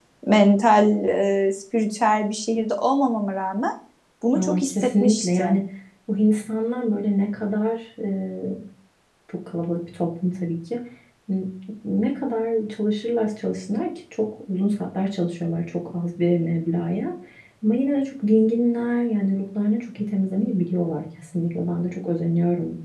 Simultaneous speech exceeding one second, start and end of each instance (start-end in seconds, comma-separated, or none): 4.4-5.6